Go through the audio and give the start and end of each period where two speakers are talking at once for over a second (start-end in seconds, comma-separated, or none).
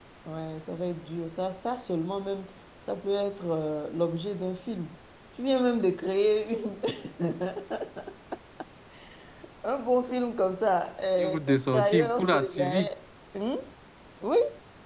11.2-12.9